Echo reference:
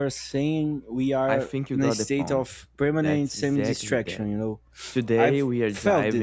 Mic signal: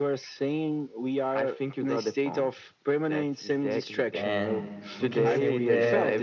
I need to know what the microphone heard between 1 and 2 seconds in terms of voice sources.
echo only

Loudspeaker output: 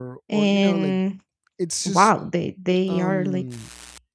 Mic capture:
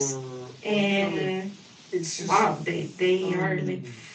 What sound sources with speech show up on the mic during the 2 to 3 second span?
echo only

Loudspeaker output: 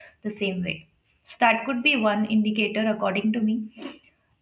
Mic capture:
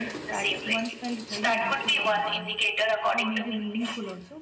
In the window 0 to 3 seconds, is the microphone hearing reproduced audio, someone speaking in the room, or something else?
both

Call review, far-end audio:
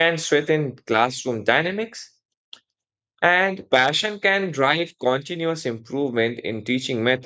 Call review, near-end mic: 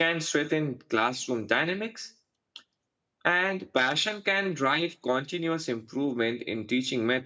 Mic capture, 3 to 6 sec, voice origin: echo only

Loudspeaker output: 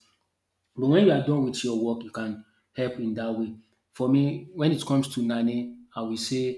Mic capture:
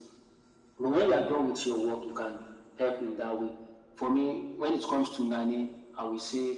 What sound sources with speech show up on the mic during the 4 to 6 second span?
echo only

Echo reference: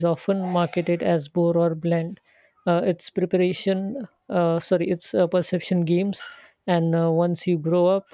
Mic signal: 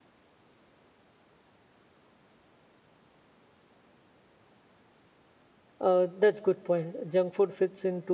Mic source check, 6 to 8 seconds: user only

